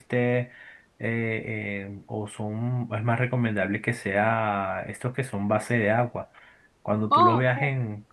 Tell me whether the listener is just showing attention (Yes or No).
Yes